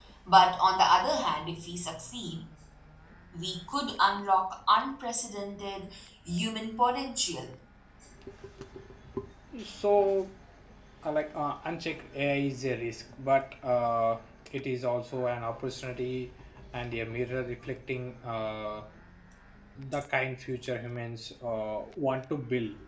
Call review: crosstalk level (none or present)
none